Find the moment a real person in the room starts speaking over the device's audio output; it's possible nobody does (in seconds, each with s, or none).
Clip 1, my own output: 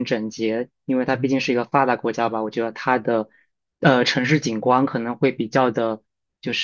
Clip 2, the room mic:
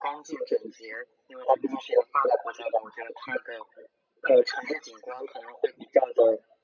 none